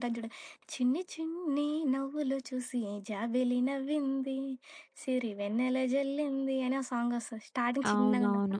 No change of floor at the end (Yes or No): No